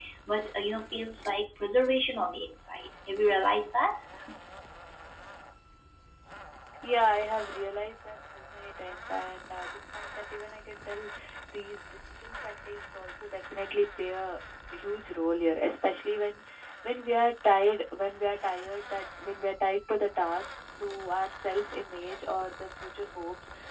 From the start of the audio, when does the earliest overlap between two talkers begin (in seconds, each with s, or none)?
none